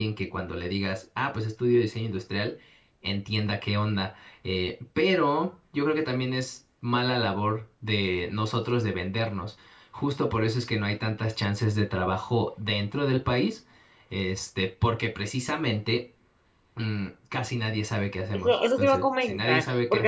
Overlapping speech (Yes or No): Yes